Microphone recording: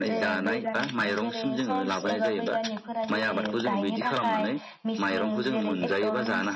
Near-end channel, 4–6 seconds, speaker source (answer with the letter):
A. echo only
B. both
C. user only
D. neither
B